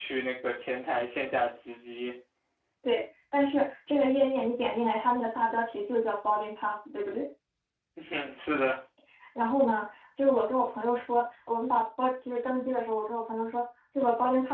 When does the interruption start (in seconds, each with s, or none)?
none